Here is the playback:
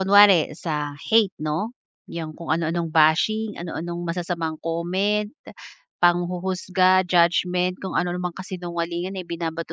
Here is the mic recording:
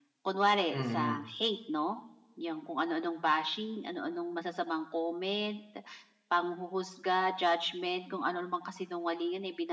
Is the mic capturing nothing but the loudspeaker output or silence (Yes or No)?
No